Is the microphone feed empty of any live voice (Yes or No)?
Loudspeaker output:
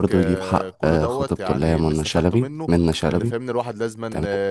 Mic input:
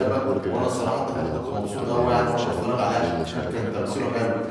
No